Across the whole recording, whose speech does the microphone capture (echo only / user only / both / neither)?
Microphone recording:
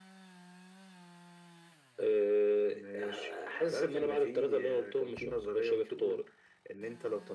echo only